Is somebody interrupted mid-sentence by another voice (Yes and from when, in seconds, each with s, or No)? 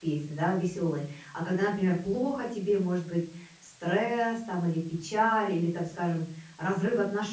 No